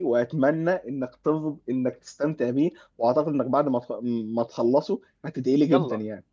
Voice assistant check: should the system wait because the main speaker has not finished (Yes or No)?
No